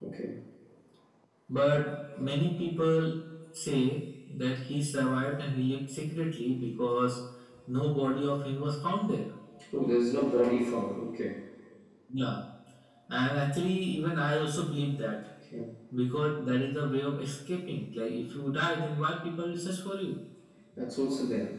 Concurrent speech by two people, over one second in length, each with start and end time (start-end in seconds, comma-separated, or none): none